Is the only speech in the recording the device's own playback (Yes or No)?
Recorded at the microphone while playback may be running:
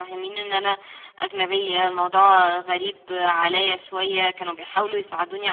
No